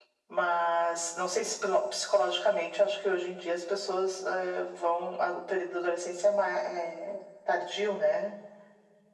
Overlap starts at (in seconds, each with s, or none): none